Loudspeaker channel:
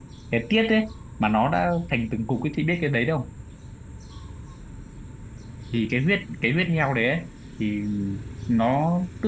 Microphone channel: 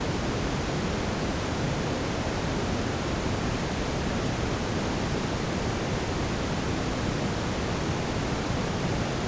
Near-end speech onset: none

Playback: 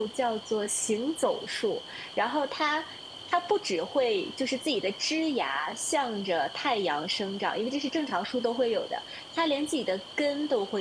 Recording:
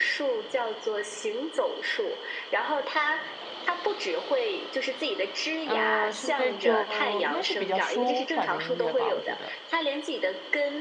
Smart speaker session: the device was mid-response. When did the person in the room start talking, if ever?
5.6 s

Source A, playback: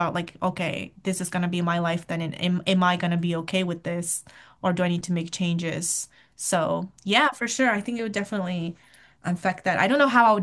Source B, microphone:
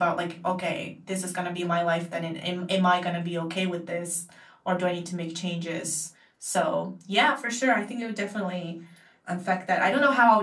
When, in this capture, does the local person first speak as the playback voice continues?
none

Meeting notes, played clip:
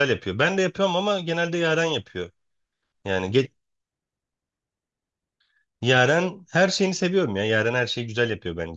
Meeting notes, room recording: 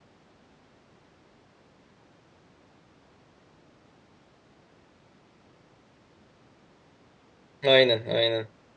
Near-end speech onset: 7.6 s

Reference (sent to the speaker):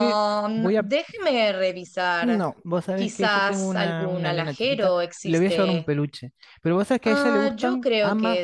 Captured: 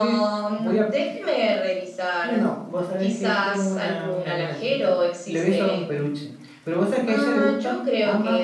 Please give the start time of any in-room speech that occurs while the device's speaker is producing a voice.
none

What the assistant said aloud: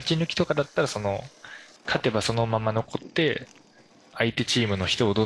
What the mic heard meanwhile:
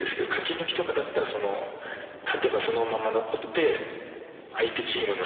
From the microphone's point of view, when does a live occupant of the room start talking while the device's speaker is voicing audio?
none

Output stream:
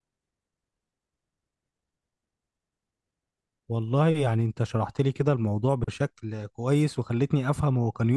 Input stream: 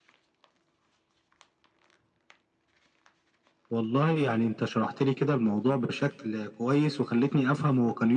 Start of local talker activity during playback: none

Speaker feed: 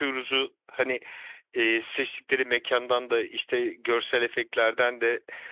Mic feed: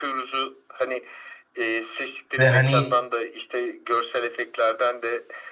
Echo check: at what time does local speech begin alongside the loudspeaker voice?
2.4 s

